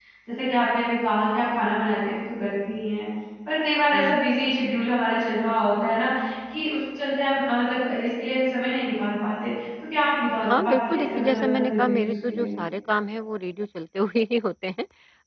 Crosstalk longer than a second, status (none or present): present